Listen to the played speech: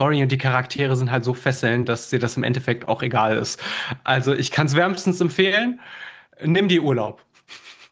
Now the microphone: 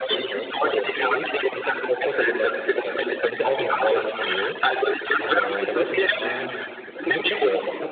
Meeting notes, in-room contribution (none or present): present